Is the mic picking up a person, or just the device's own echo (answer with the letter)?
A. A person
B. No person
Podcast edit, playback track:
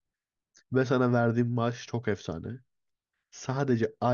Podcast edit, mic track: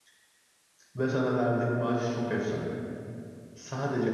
B